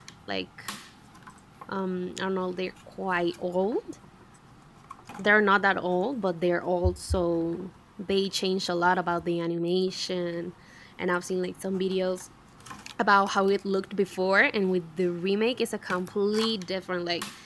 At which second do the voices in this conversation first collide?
none

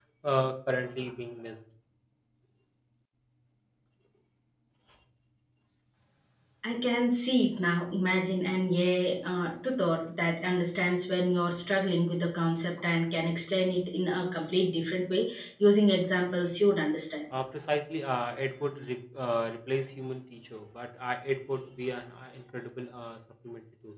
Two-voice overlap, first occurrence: none

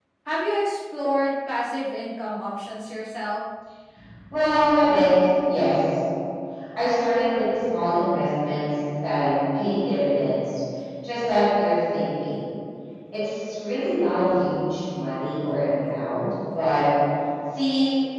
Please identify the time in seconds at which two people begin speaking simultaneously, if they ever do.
none

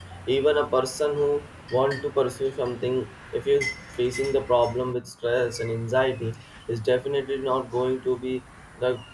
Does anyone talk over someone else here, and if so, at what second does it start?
none

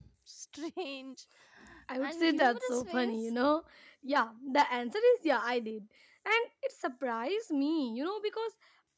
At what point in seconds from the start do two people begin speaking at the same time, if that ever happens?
2 s

